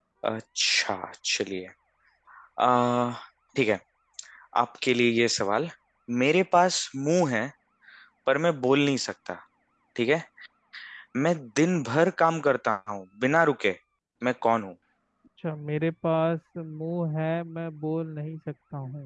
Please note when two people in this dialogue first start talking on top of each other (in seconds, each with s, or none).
none